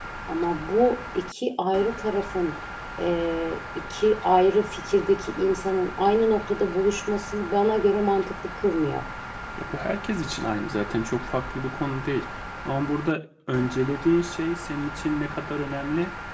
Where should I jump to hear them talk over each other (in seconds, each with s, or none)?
none